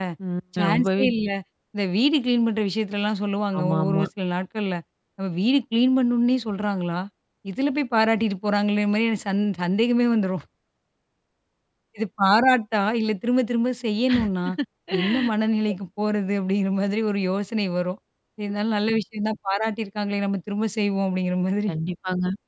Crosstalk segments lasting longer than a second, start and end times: none

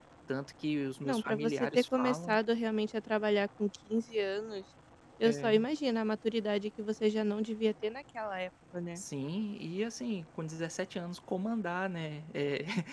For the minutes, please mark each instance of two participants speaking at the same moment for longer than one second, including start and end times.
1.0-2.3

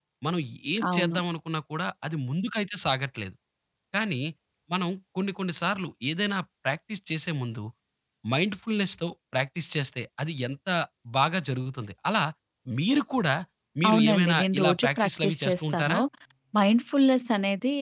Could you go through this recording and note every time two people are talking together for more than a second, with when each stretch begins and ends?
13.9-16.0

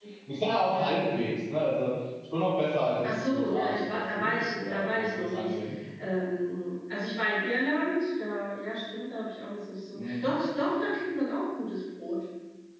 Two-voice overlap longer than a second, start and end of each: 3.0-5.5

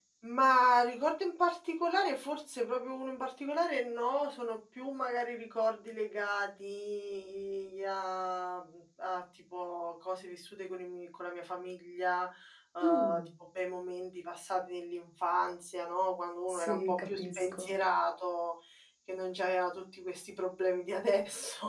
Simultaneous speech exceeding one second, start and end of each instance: 16.5-17.7

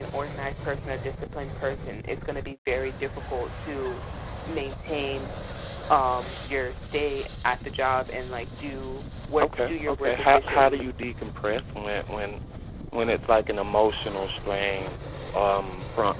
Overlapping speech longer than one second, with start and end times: 9.4-10.9

